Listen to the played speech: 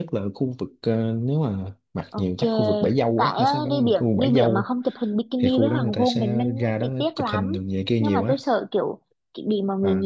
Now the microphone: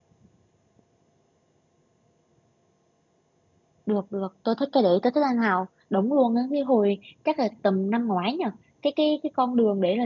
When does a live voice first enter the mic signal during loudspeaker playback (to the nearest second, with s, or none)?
4 s